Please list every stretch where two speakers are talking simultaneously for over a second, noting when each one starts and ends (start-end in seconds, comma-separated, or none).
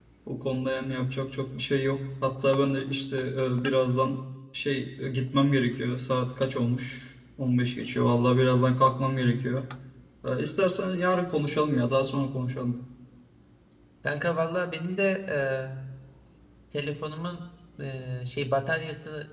none